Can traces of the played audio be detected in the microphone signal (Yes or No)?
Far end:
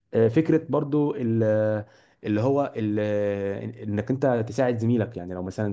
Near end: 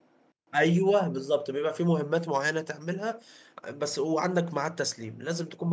No